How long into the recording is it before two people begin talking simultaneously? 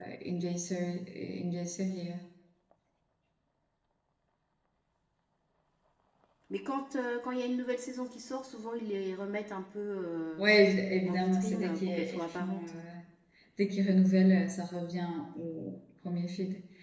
11.1 s

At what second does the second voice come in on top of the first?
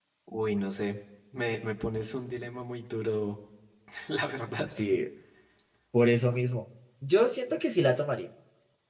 none

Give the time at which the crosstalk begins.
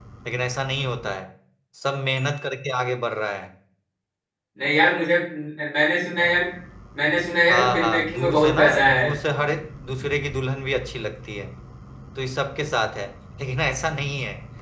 7.5 s

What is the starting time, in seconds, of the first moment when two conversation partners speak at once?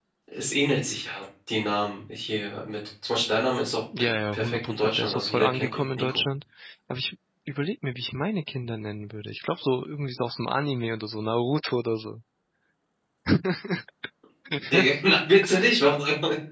4.0 s

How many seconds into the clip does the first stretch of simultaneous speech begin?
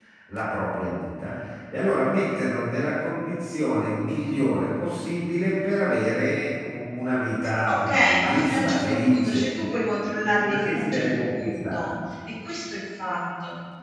7.7 s

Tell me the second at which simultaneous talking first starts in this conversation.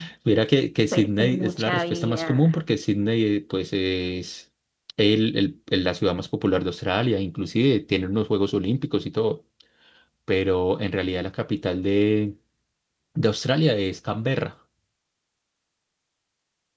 0.9 s

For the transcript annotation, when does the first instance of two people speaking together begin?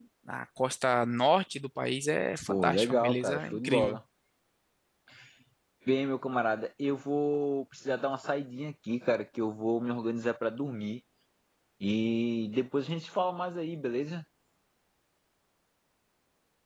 2.5 s

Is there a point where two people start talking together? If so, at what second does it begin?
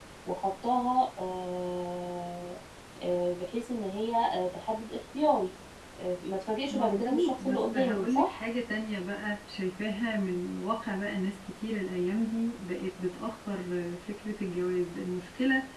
6.7 s

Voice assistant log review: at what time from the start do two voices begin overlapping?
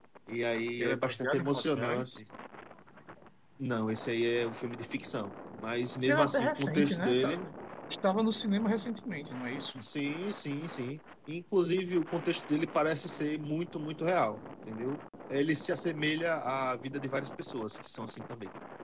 0.8 s

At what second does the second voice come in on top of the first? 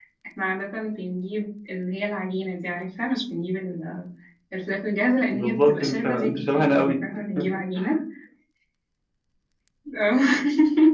5.3 s

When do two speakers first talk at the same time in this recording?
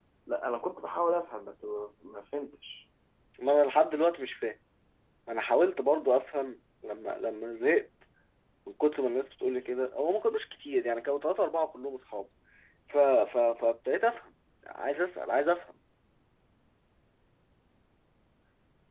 none

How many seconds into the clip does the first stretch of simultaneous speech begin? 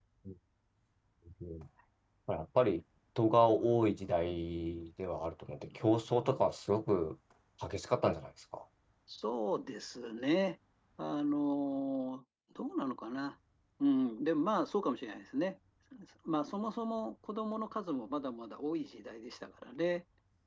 none

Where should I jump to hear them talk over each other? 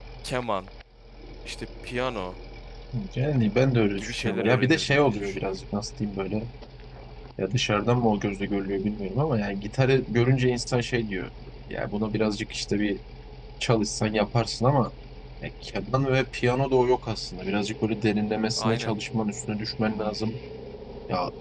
4.0 s

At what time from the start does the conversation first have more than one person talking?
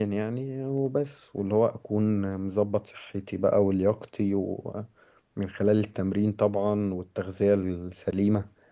none

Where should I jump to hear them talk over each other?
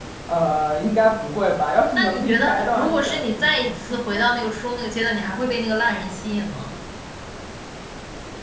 1.9 s

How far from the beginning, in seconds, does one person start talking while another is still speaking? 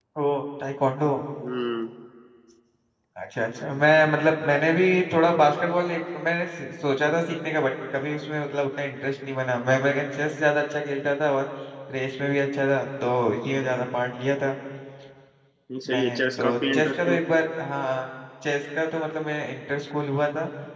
15.9 s

